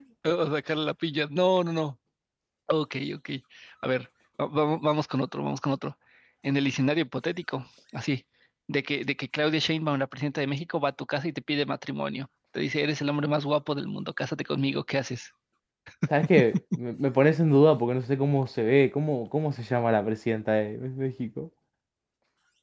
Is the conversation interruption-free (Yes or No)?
Yes